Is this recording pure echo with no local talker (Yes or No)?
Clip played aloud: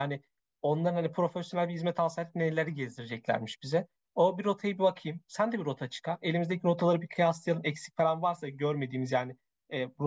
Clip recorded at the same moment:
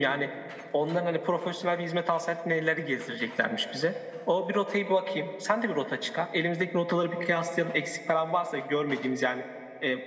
Yes